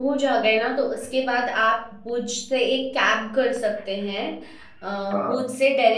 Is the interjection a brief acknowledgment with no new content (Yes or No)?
Yes